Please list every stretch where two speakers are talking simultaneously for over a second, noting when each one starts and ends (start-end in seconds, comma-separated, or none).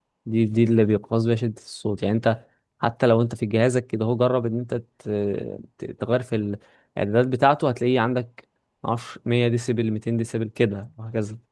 none